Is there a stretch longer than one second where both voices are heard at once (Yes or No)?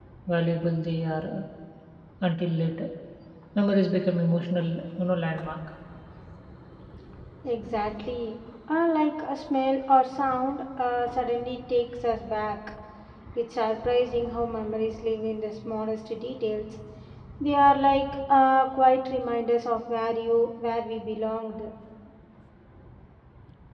No